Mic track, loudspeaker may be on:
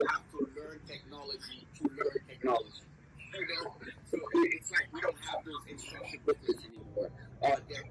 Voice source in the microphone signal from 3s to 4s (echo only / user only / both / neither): echo only